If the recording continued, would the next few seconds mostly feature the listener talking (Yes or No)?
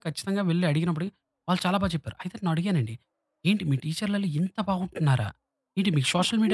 Yes